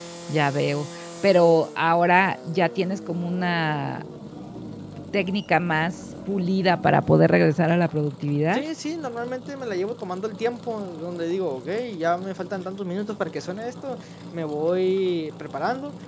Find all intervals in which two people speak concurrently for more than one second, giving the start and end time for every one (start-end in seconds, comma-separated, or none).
none